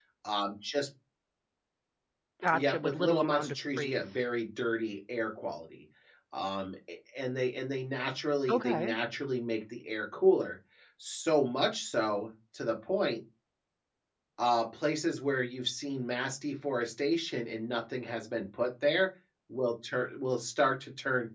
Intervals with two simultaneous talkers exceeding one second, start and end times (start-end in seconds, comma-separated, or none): 2.5-4.2